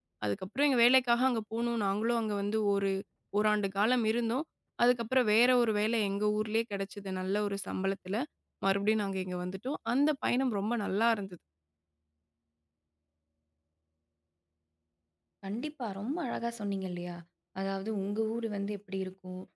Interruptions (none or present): none